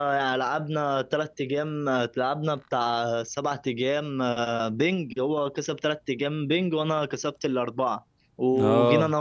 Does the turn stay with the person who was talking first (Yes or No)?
Yes